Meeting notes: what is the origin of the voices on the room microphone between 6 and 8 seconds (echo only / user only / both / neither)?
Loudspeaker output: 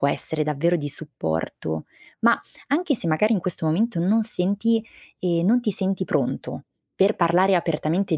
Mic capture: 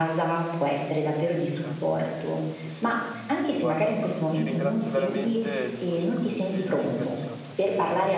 both